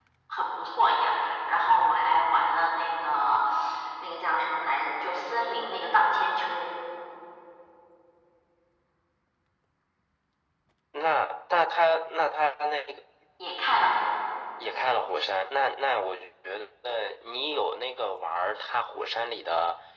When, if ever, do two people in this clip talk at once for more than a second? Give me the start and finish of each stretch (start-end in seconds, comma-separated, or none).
none